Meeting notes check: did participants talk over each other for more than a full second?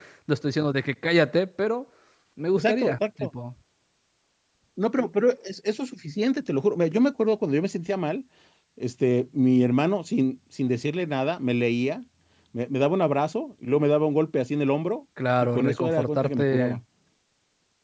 Yes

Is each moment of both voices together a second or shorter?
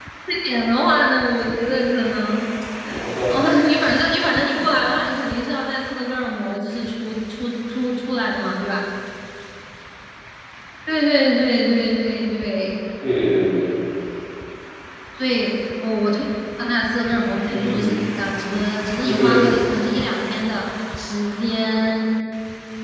Yes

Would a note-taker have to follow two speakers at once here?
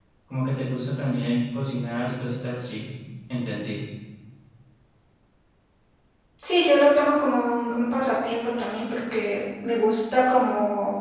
No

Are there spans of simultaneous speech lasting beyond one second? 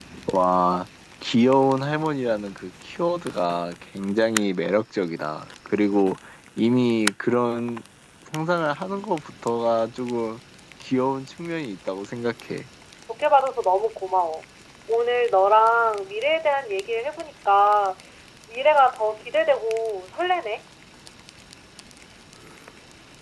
No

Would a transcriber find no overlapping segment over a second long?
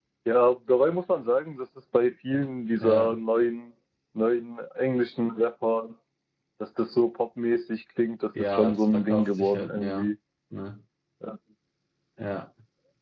No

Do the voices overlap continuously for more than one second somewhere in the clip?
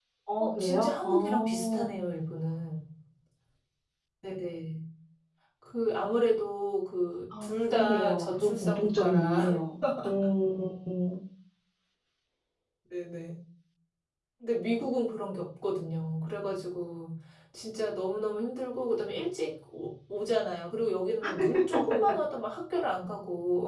Yes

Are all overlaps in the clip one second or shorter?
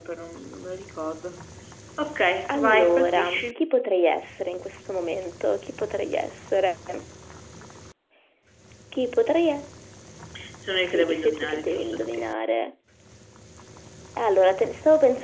No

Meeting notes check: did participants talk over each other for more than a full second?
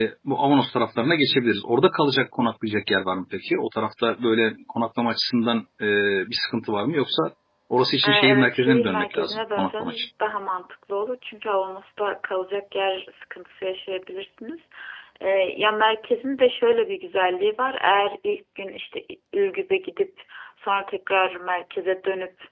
Yes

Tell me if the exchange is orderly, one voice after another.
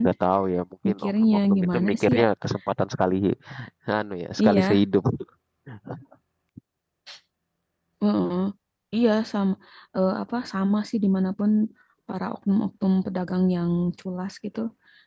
No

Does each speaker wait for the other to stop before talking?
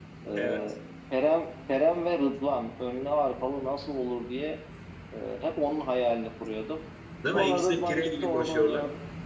No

